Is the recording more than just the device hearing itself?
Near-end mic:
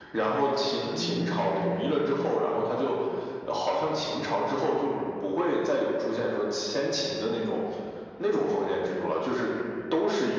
Yes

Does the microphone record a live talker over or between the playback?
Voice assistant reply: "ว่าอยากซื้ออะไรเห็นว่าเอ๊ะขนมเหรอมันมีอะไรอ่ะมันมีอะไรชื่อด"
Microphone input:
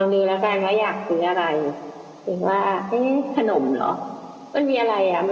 No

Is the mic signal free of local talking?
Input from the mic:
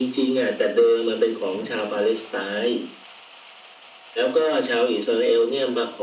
Yes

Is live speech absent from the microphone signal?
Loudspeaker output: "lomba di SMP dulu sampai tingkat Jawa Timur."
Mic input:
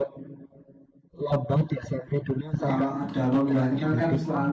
No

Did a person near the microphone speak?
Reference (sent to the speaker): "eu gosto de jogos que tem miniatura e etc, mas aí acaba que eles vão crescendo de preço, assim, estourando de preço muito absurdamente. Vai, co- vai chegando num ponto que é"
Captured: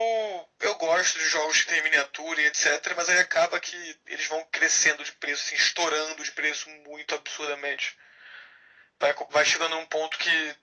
No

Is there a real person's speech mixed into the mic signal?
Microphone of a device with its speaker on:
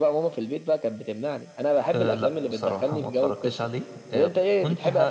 Yes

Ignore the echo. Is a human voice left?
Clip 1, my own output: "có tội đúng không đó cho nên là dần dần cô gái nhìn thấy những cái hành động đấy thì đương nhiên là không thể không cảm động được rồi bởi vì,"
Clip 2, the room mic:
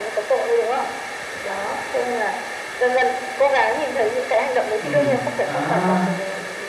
Yes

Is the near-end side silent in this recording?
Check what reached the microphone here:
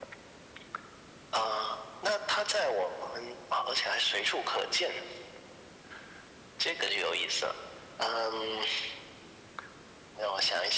Yes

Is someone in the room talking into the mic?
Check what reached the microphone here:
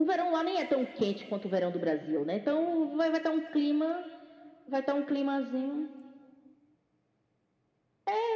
No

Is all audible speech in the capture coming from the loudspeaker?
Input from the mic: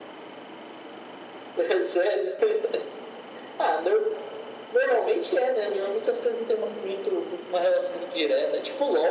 Yes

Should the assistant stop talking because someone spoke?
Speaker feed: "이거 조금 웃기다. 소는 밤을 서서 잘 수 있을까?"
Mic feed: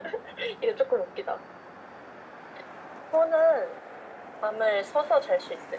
No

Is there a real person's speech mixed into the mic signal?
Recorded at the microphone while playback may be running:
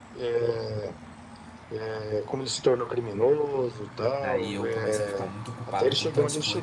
Yes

